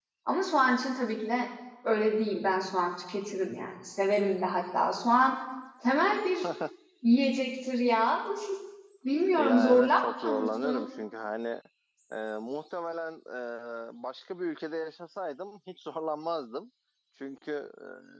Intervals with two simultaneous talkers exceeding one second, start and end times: 9.4-10.8

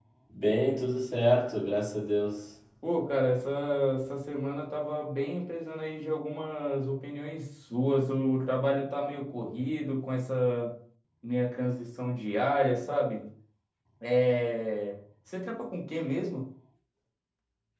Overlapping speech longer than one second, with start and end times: none

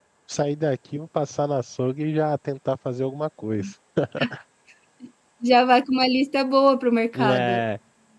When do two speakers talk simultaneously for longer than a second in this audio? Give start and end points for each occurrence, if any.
none

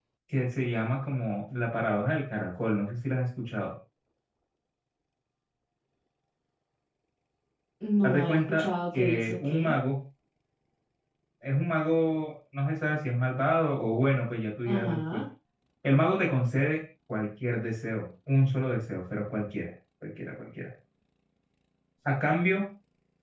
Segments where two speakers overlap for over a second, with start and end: 8.0-9.7

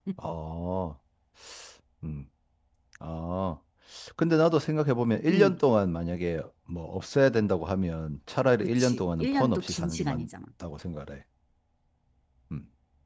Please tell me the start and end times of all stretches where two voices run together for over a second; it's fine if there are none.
8.8-10.3

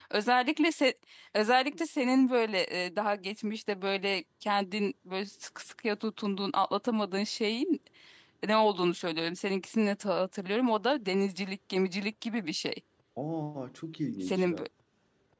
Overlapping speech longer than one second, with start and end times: none

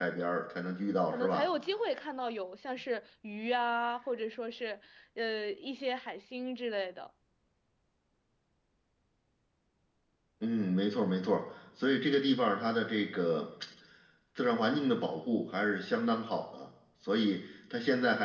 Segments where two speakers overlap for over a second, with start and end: none

